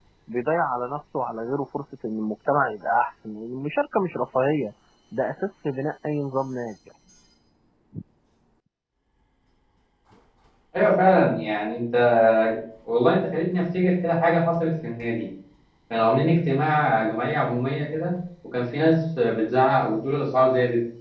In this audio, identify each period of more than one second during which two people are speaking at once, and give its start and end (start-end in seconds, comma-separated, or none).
none